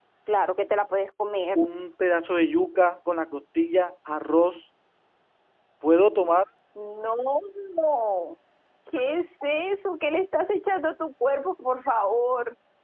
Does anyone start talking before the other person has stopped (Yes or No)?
No